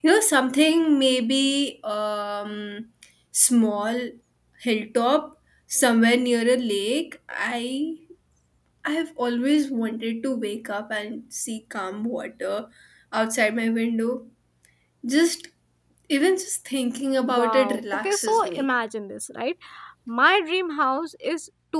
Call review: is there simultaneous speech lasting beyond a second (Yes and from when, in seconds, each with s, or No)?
Yes, from 17.2 s